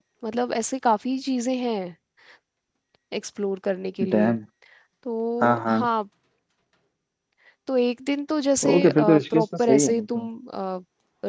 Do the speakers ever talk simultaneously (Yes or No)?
Yes